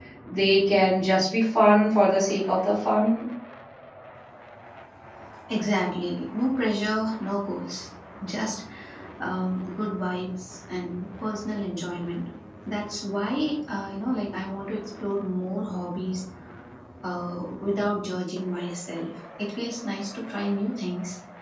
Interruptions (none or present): none